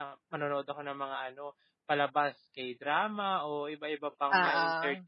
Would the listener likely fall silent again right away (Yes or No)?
Yes